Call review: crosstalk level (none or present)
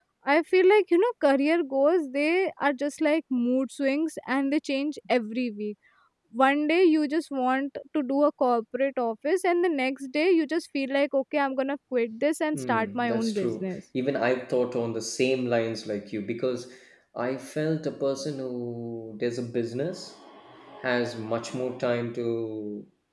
present